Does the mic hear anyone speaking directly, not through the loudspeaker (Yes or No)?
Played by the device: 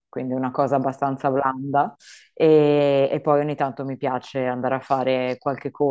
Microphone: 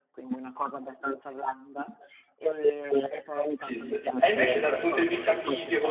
Yes